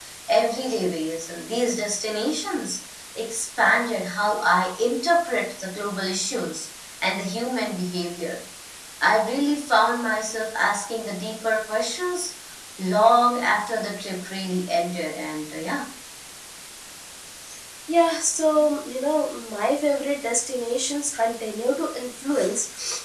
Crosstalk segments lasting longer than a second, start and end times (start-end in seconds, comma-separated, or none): none